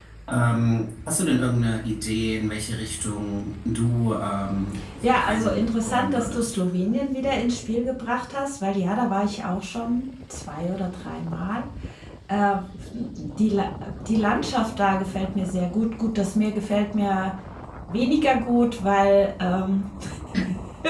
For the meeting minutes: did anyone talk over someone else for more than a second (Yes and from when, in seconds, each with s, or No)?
Yes, from 5.0 s